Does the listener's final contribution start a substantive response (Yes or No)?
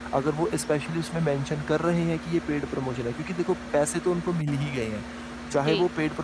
No